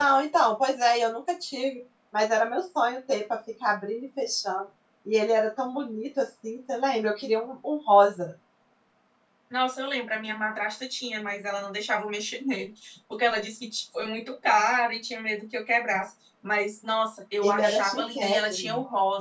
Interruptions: present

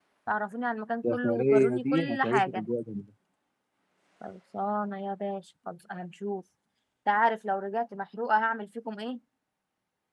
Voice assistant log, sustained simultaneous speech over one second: present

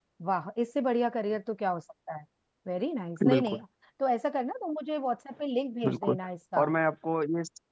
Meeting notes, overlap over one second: none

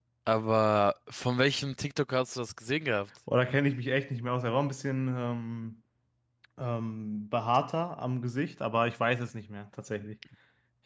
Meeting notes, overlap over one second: none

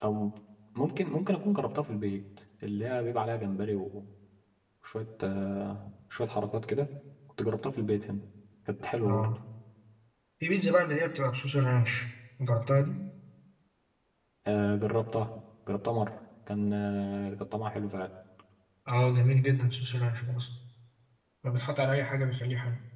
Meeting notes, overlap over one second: none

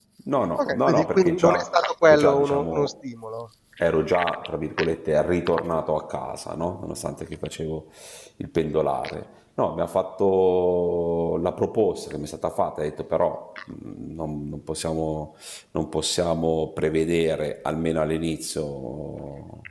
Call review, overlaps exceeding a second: present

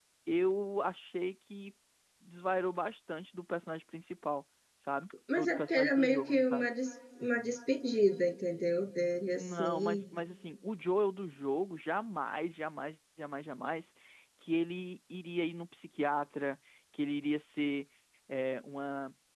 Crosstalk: present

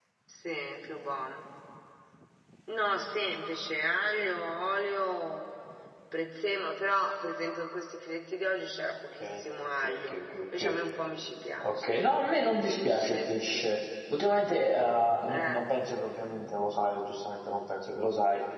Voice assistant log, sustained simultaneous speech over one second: present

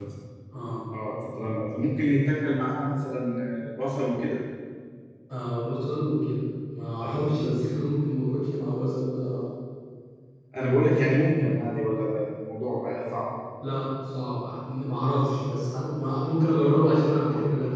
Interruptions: none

